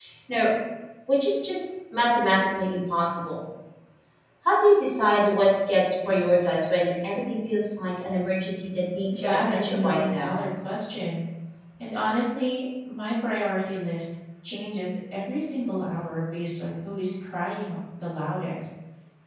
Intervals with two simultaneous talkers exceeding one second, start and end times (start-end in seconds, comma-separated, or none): 9.1-10.4